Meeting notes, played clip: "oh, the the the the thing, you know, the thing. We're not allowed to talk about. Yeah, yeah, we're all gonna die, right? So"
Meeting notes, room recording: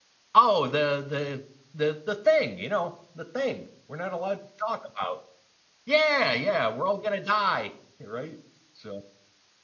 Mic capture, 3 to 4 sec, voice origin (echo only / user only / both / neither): echo only